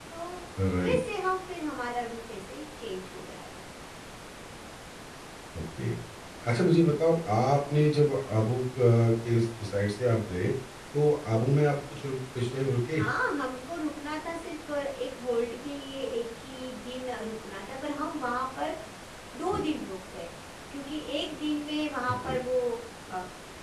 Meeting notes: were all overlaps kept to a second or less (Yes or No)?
Yes